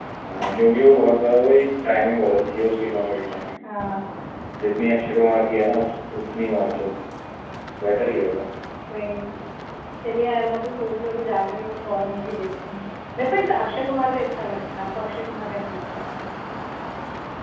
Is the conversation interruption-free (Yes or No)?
Yes